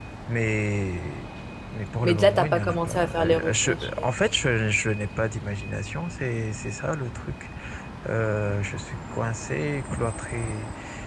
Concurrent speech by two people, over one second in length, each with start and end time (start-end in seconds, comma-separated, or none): 2.0-4.1